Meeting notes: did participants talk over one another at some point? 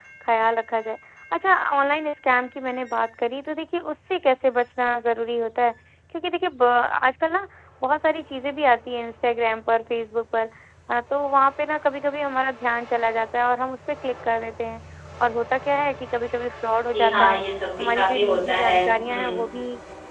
Yes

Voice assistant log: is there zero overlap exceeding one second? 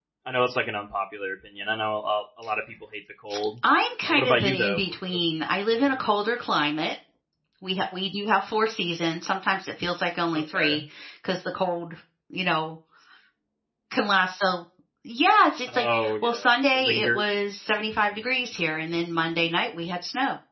No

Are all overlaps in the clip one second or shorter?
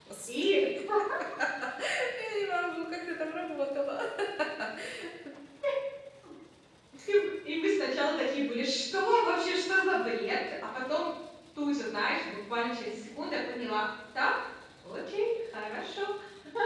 Yes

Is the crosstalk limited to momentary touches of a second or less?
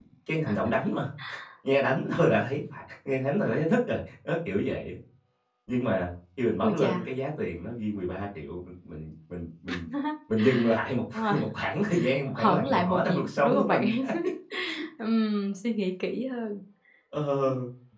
No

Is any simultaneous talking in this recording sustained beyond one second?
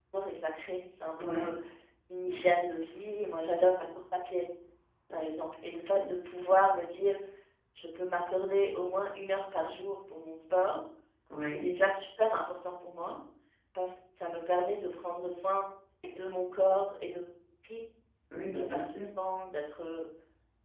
No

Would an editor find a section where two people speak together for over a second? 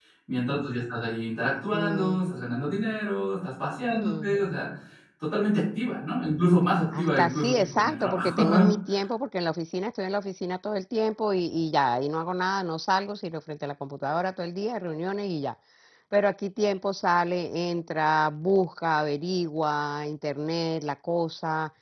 Yes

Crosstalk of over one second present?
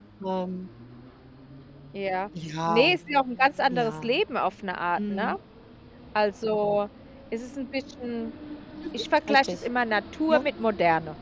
No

